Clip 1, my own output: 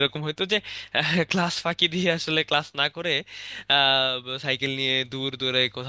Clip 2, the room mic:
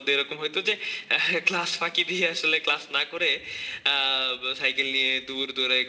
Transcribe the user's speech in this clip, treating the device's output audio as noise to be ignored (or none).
none